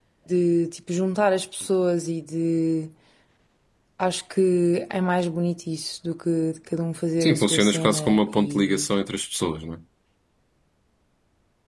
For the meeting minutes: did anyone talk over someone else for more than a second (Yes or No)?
Yes